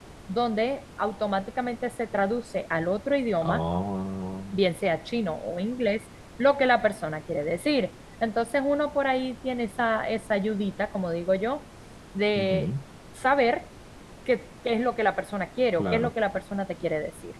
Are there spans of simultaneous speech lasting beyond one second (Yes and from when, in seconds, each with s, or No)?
No